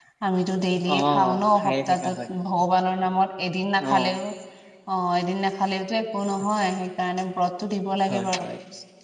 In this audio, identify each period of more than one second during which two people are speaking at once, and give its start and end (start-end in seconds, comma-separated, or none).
0.9-2.2